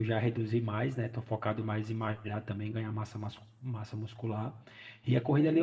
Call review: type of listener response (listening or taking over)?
listening